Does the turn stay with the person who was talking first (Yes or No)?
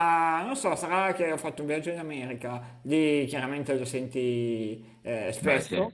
Yes